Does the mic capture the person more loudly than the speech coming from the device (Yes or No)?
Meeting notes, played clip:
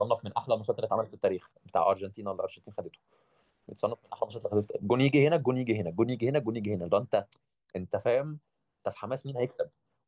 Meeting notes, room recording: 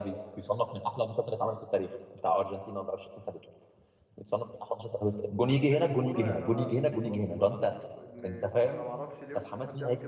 No